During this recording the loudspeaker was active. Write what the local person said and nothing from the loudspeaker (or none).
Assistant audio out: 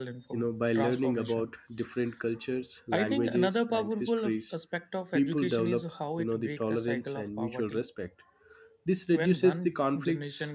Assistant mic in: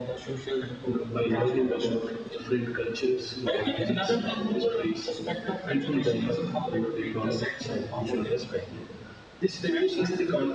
Hmm.